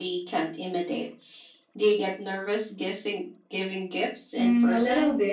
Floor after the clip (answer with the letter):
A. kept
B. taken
B